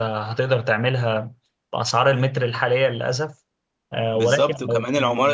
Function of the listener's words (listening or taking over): taking over